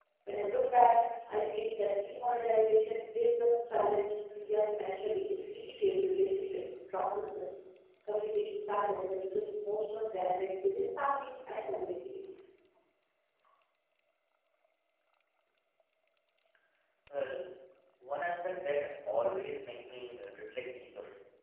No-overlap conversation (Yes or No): Yes